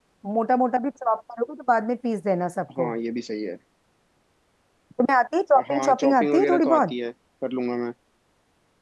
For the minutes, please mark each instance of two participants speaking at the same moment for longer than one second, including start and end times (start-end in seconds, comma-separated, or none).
5.7-6.9